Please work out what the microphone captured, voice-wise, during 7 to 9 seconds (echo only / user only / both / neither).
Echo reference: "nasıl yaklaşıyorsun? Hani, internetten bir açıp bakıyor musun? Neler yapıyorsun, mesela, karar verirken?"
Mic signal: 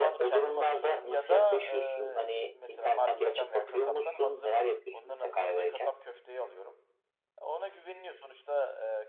user only